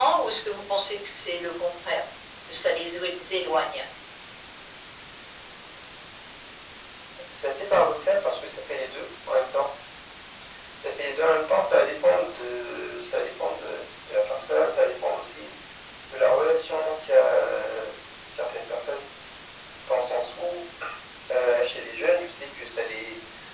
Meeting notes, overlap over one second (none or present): none